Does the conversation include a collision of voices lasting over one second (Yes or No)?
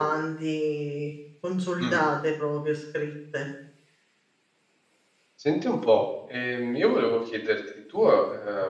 No